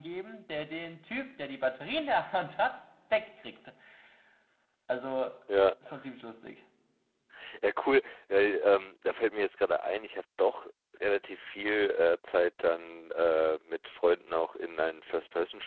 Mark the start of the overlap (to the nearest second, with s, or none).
none